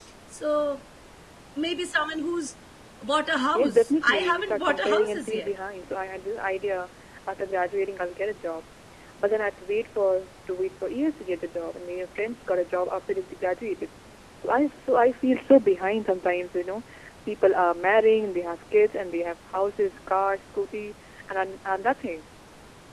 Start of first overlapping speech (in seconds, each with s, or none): 3.5 s